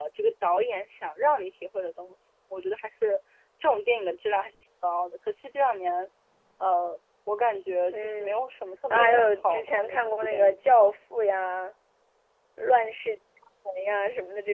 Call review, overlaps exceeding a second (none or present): present